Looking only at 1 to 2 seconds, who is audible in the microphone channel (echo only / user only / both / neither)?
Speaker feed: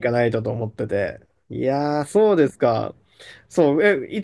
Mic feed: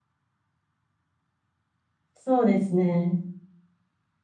neither